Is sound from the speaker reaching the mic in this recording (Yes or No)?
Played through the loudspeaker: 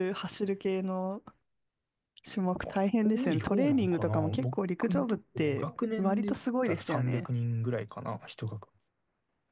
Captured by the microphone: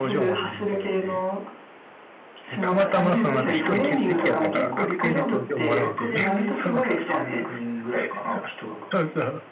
Yes